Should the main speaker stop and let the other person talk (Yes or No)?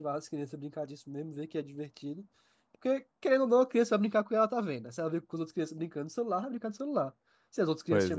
No